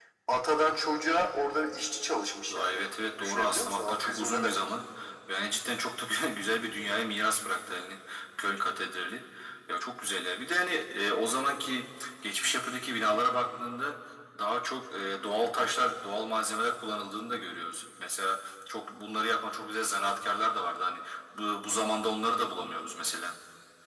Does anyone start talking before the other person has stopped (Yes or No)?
Yes